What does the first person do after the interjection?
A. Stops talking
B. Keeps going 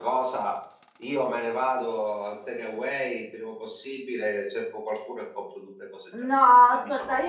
A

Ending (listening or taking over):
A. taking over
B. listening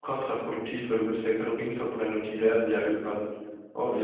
B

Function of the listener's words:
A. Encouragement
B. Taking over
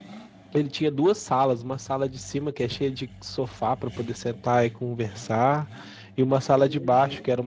A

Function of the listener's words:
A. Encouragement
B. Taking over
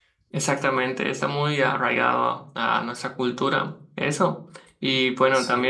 A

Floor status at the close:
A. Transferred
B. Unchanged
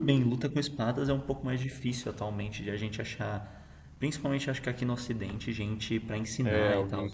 A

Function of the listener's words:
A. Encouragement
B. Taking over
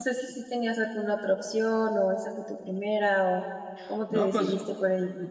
B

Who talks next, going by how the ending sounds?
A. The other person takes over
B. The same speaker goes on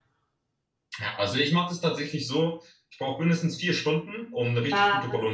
B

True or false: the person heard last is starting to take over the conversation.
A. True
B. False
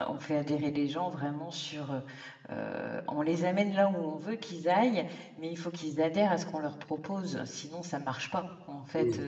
B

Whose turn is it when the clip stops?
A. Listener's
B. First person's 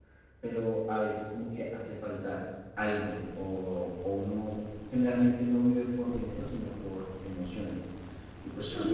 A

